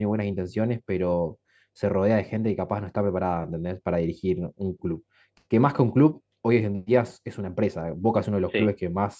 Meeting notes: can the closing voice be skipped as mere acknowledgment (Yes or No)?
Yes